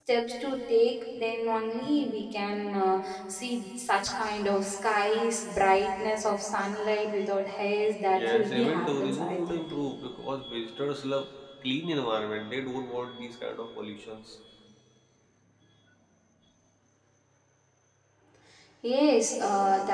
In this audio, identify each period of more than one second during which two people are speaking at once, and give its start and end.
8.1-9.6

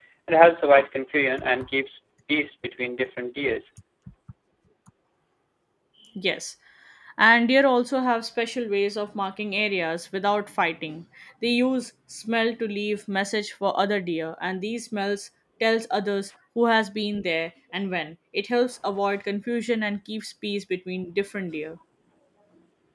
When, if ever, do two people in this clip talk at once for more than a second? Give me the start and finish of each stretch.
none

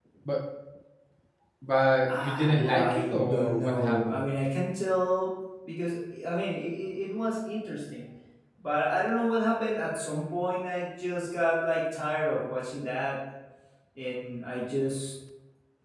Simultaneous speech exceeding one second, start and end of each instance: 2.0-4.2

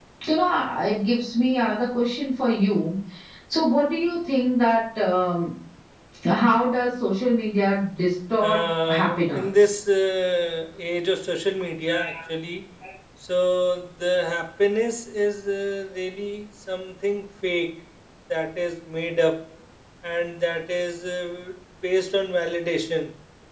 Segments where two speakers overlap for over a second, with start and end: 8.4-9.7

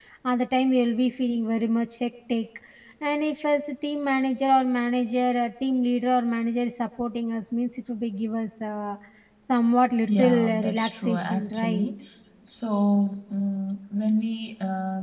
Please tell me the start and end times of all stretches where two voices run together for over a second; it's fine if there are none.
10.1-11.9

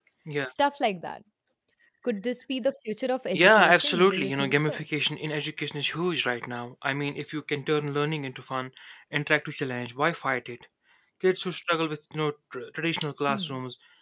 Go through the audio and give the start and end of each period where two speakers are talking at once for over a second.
3.3-4.9

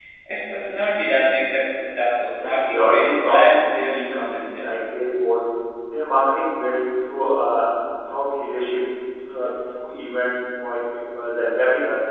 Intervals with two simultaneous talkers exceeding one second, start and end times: 2.3-4.5

